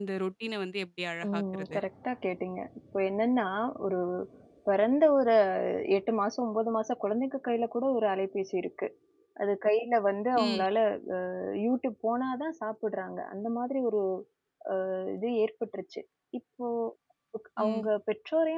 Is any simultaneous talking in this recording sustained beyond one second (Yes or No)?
No